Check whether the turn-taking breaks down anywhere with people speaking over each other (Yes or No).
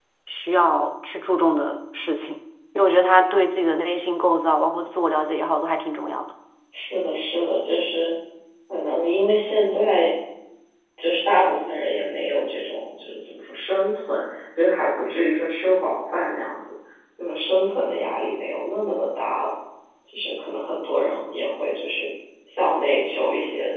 No